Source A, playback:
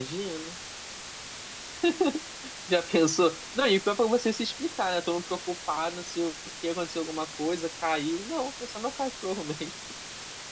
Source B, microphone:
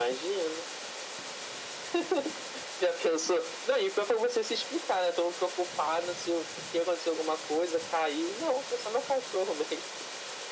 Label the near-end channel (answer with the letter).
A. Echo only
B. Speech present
A